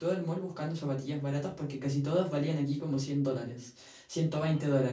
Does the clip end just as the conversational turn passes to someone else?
No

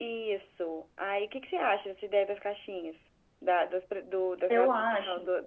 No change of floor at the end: Yes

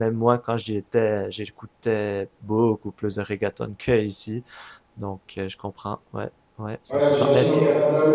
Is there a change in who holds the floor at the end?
Yes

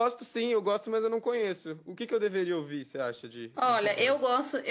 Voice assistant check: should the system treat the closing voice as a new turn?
Yes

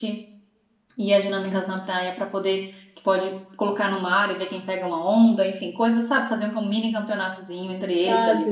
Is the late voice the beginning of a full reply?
Yes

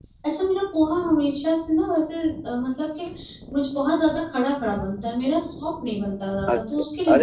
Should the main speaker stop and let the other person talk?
Yes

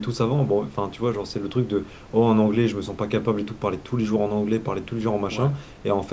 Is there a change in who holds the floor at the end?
No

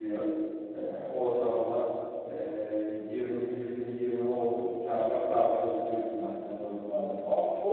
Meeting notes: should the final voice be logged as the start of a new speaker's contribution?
Yes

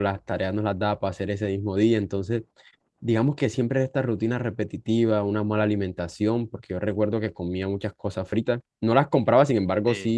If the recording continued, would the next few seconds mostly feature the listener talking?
No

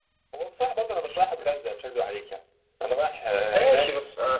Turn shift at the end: Yes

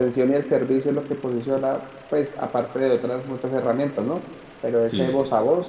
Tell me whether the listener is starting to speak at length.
No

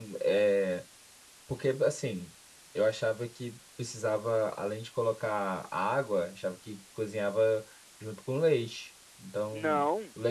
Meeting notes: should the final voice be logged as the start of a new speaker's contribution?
Yes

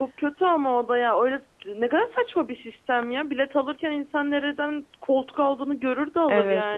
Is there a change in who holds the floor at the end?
Yes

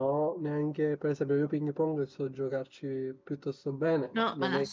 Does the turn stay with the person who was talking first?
No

